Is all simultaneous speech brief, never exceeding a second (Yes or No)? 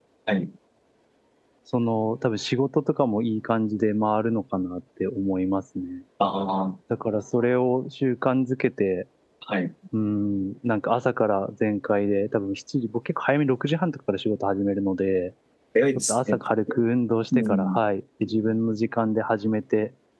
Yes